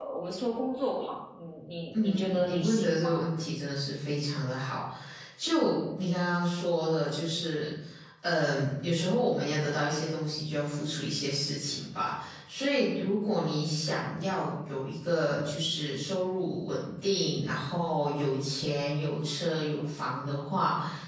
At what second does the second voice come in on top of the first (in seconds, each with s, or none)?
1.9 s